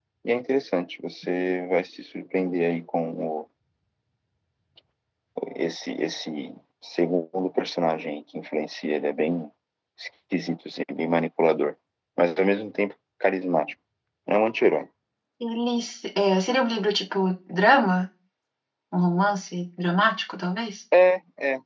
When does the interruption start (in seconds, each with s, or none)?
none